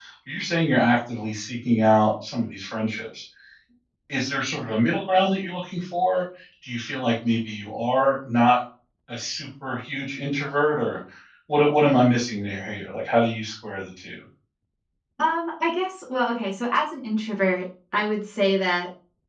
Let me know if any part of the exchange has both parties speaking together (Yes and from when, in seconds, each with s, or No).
No